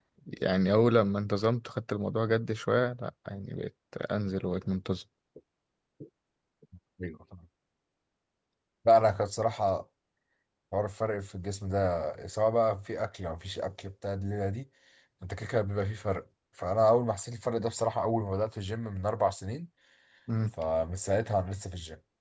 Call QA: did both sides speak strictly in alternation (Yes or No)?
Yes